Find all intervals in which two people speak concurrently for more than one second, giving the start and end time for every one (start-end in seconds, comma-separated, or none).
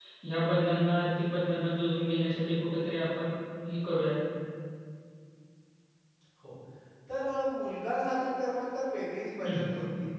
none